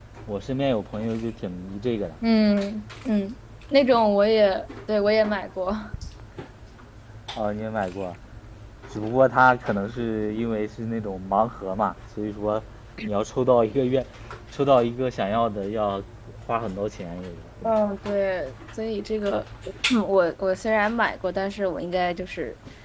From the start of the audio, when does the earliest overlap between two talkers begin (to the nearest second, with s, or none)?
none